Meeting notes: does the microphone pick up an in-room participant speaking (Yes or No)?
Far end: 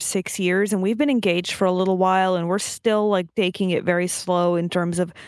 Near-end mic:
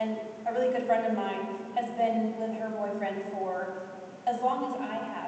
Yes